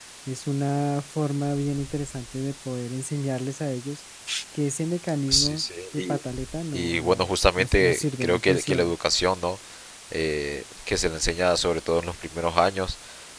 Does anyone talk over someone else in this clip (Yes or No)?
Yes